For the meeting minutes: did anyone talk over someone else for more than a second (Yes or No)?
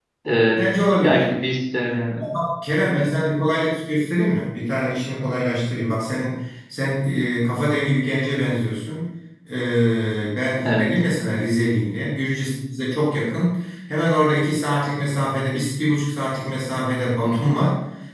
No